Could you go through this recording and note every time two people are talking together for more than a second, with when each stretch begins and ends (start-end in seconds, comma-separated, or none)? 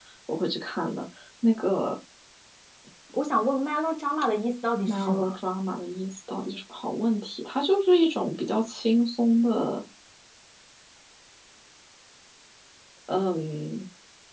none